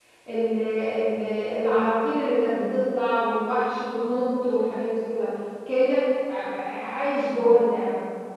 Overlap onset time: none

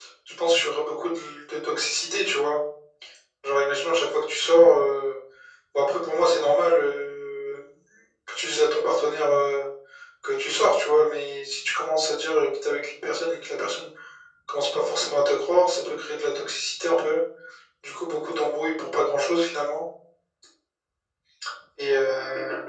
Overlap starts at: none

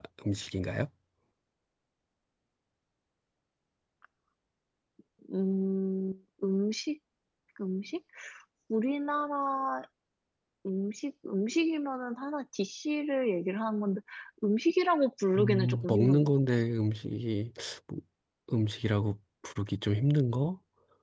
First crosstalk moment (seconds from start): 15 s

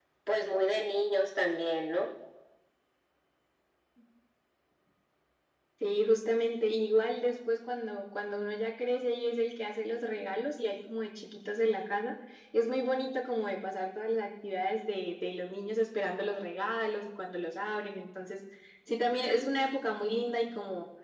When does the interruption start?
none

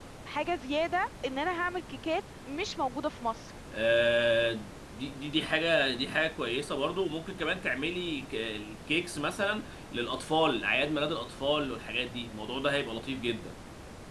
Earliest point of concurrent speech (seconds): none

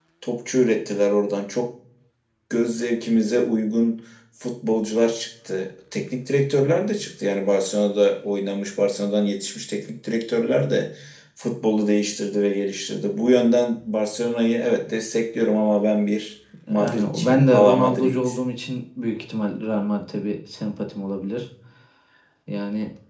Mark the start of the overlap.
17 s

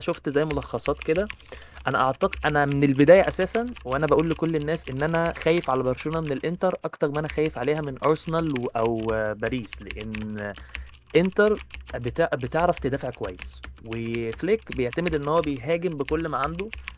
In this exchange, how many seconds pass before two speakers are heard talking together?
none

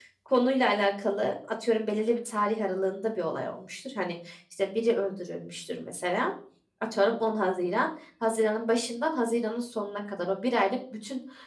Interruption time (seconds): none

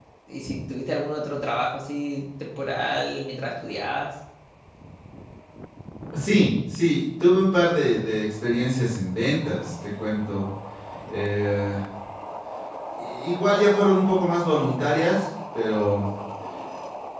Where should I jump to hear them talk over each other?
none

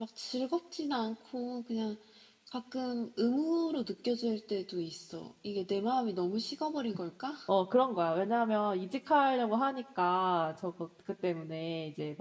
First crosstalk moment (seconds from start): none

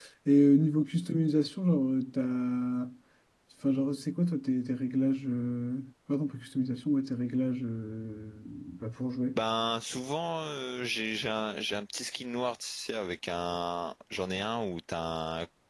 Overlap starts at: none

